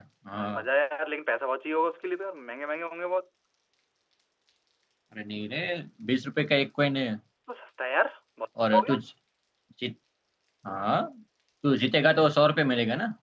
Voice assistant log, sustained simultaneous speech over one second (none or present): none